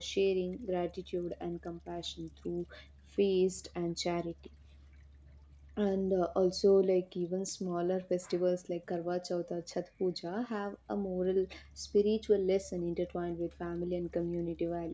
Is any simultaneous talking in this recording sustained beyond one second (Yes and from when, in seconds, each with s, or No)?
No